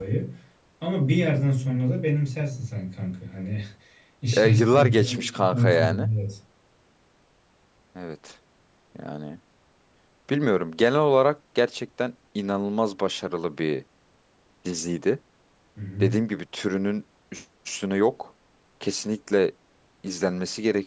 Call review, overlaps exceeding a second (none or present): present